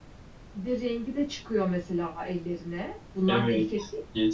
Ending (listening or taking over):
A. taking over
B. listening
A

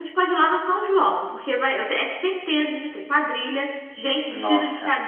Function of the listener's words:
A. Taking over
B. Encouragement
B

